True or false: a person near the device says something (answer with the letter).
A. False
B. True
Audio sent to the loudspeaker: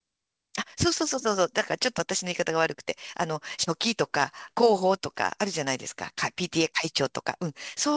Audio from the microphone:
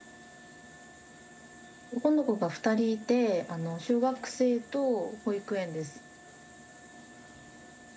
B